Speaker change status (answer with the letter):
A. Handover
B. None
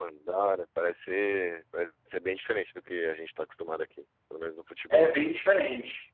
A